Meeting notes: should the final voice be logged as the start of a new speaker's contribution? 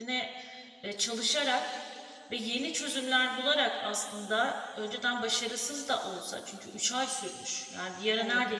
No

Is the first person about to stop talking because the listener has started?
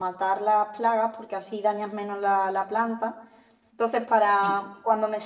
No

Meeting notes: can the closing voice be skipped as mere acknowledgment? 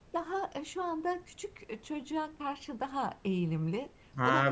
No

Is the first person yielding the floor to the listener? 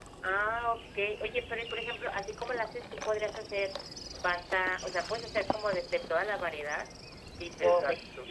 No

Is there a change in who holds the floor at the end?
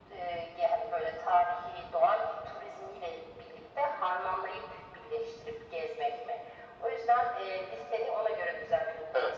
Yes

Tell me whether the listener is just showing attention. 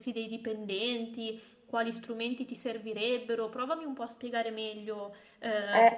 No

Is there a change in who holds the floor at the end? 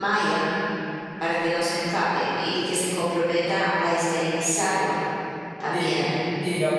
Yes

